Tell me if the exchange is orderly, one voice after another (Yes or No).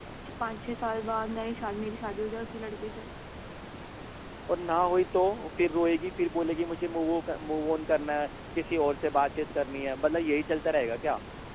Yes